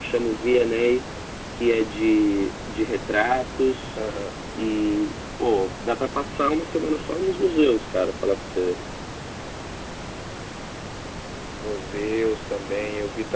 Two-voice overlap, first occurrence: none

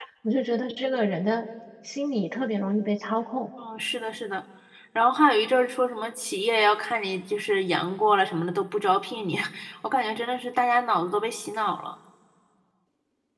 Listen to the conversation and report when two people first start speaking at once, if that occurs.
none

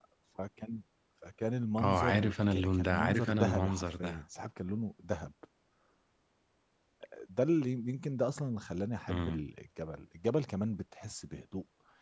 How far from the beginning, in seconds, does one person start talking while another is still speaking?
1.8 s

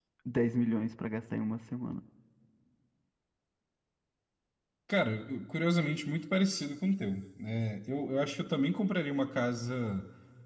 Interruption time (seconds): none

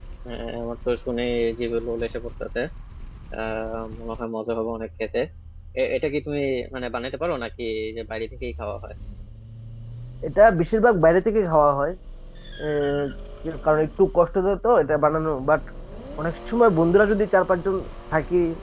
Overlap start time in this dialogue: none

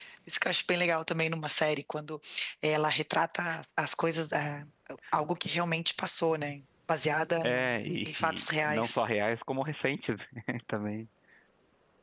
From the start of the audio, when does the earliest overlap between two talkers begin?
7.4 s

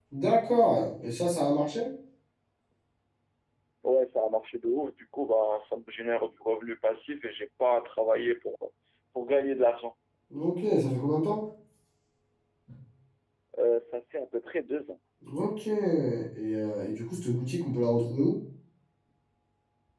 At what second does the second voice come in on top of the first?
none

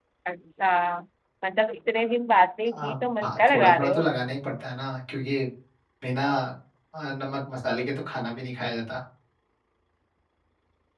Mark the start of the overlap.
2.7 s

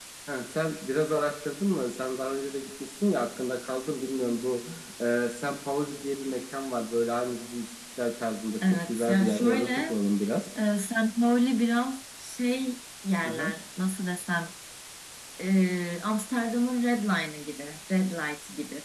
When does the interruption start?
8.7 s

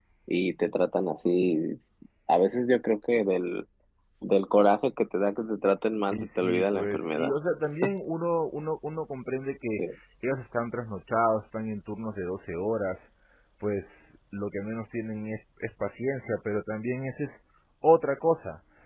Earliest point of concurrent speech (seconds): 6.1 s

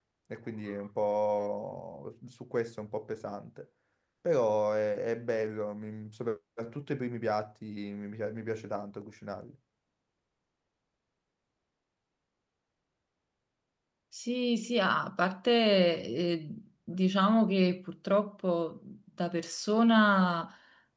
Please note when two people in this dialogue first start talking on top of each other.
none

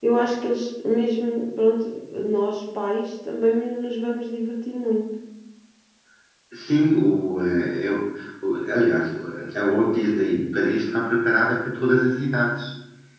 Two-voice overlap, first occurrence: none

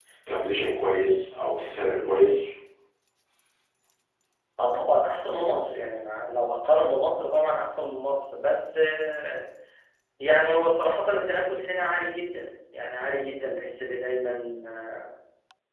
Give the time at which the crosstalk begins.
none

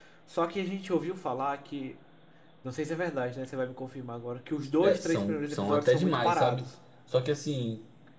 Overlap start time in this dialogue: 4.8 s

